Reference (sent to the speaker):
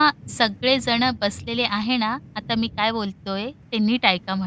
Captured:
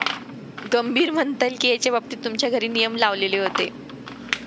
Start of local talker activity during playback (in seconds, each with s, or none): 0.7 s